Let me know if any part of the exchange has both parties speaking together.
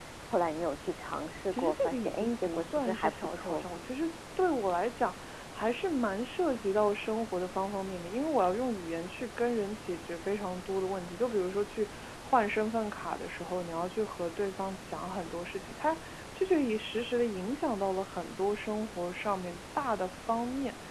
Yes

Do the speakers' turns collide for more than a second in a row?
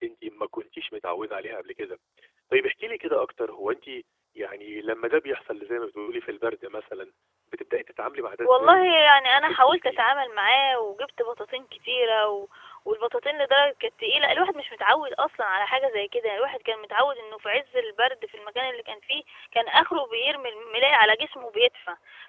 Yes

